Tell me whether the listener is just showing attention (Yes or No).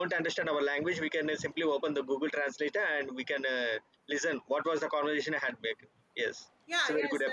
No